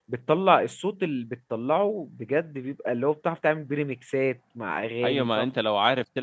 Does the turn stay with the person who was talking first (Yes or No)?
No